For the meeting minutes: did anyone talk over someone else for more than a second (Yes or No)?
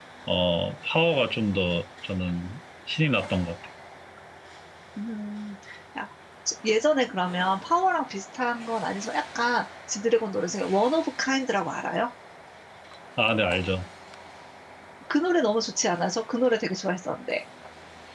No